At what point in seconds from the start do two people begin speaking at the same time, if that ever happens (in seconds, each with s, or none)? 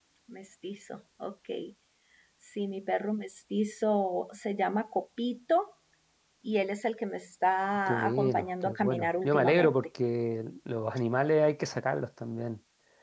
7.9 s